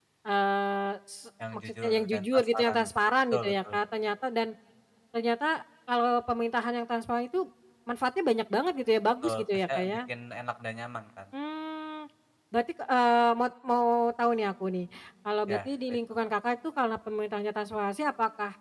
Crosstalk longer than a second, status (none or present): present